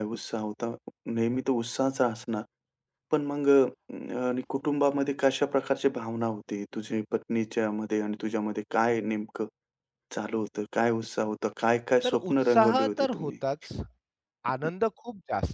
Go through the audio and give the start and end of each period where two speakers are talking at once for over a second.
12.0-13.3

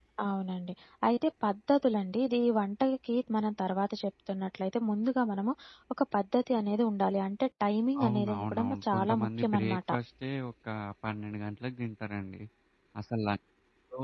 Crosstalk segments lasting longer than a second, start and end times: 8.0-9.8

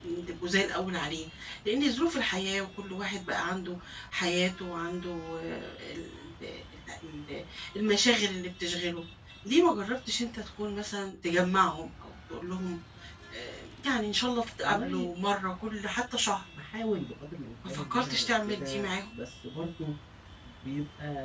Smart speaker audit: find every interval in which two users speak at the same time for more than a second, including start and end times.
17.7-19.1

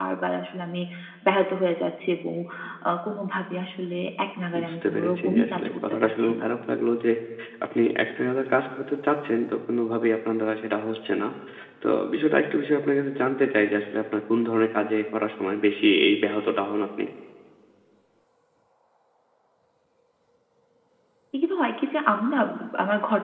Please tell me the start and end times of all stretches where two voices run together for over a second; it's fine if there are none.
4.6-6.5

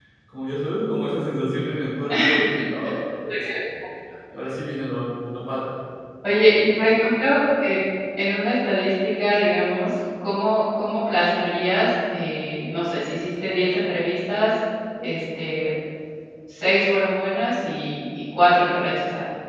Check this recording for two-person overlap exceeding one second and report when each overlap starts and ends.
none

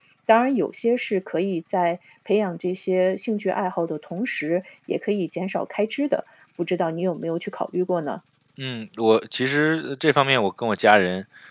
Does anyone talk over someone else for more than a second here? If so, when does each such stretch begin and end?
none

